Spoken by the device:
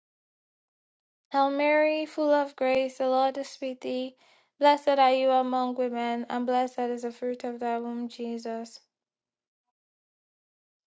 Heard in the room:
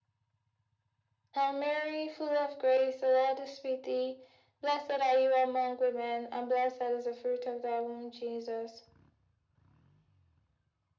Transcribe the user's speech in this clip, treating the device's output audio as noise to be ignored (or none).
none